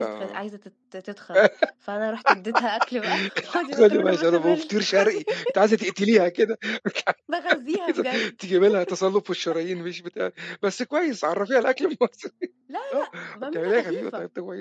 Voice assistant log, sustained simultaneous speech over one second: present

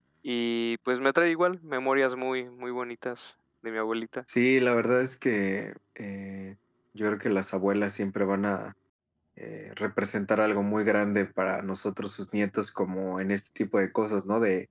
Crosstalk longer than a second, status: none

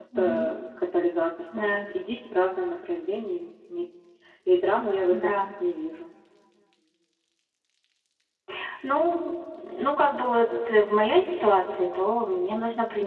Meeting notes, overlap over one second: none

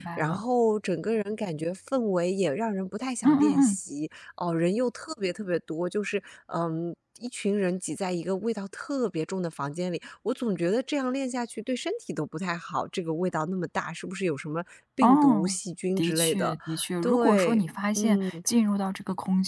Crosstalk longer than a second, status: present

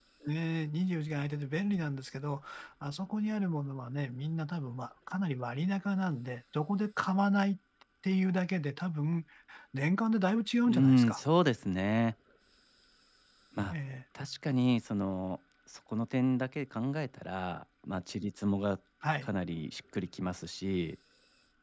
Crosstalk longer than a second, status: none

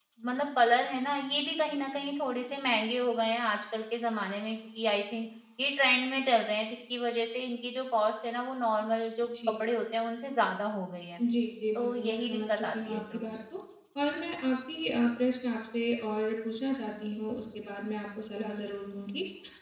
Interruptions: present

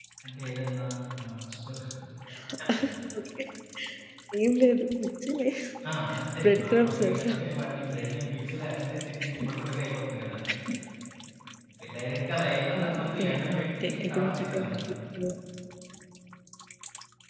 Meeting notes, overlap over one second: present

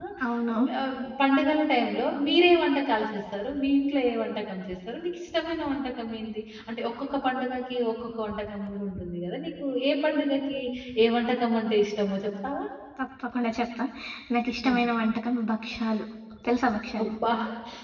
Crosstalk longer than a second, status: none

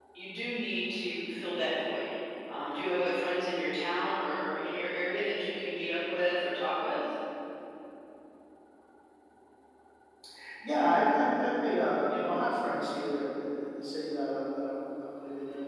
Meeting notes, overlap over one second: none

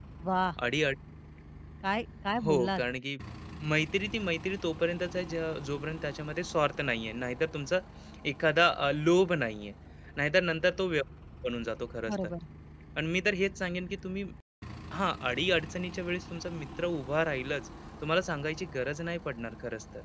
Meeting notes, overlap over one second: none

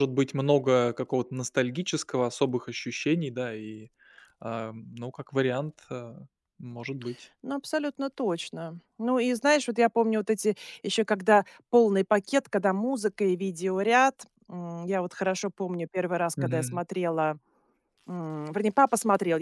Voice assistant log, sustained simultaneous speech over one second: none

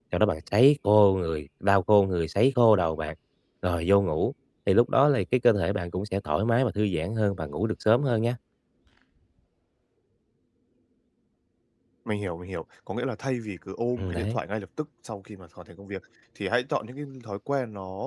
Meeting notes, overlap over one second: none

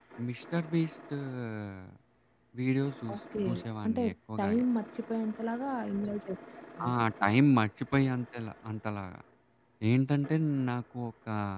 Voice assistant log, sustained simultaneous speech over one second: none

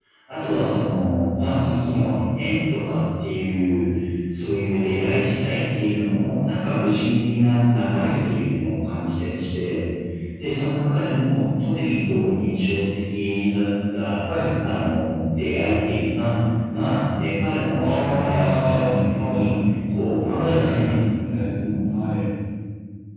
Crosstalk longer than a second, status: present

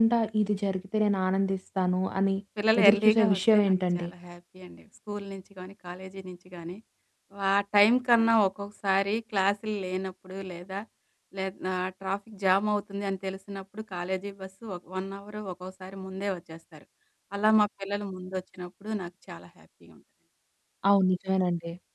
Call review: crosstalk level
present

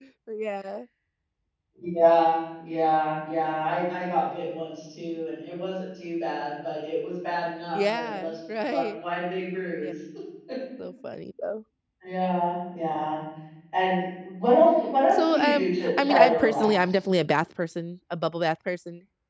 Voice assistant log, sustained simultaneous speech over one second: present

